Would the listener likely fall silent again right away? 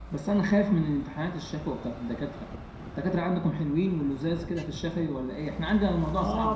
No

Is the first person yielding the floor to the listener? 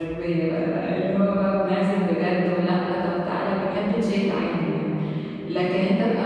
No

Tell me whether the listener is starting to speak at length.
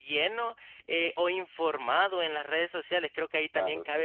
No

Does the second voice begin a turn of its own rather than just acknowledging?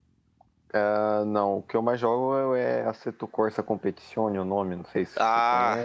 Yes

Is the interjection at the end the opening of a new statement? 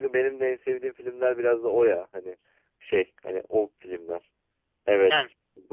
No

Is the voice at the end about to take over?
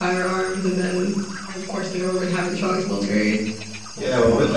Yes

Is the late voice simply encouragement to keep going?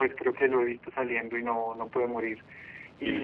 Yes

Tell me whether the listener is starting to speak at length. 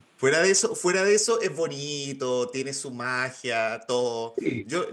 No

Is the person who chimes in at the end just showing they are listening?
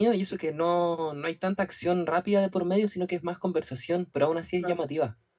No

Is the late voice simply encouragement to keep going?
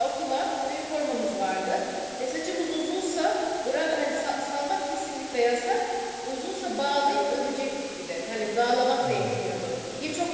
Yes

